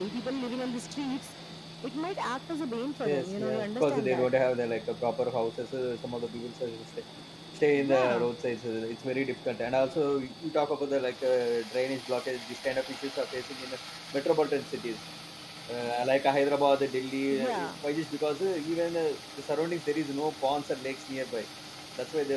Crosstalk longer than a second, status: present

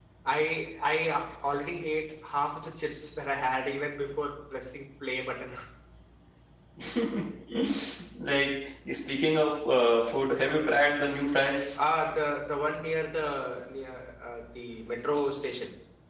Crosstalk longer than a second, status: none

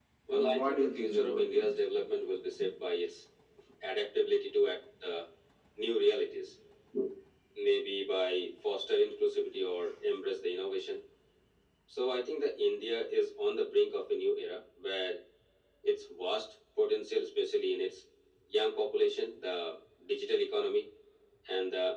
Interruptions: present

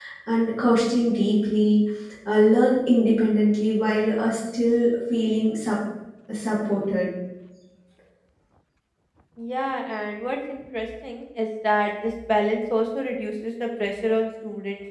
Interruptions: none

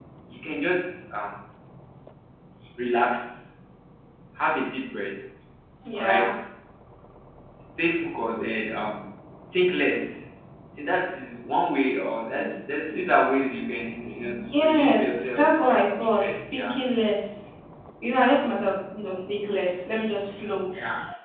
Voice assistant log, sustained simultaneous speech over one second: present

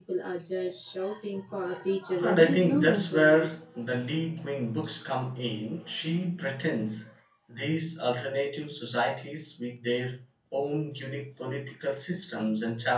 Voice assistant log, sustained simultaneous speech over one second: present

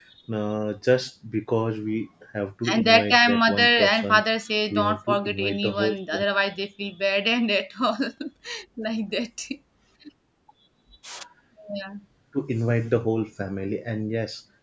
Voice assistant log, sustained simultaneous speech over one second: present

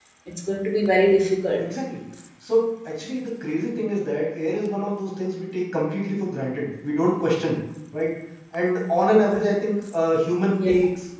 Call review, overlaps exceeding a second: none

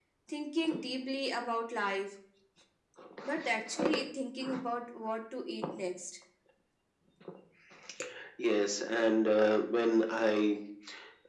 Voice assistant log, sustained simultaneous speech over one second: none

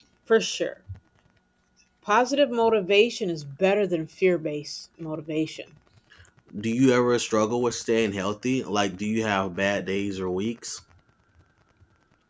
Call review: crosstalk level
none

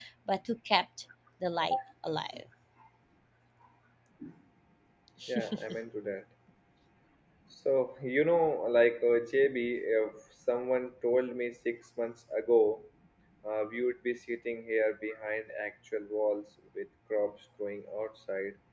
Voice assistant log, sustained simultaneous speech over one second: none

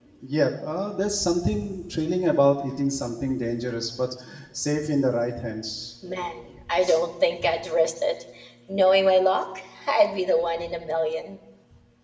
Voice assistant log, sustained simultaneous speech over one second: none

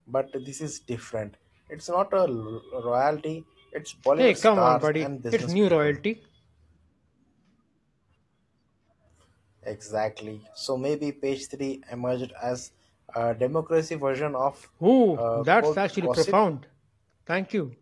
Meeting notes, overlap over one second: present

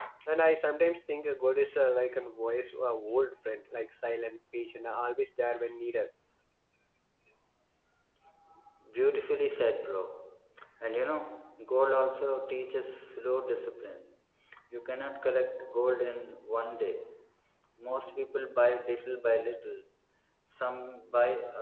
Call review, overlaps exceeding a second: none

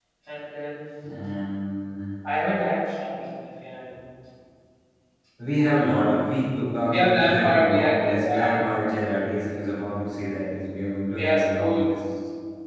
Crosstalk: present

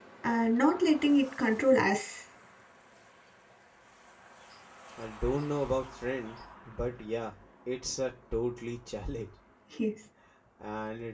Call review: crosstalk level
none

